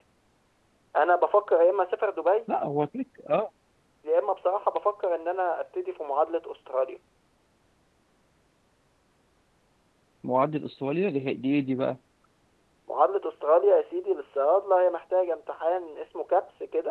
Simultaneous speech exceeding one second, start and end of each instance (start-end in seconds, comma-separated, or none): none